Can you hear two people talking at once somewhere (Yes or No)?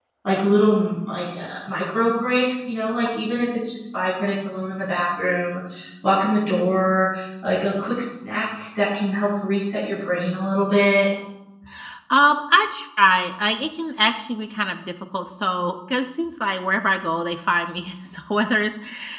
No